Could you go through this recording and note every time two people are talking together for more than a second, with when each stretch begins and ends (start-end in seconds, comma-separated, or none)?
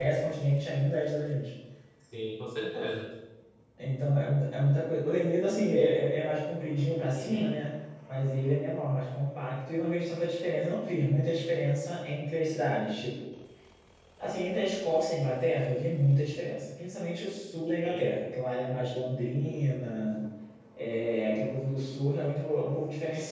none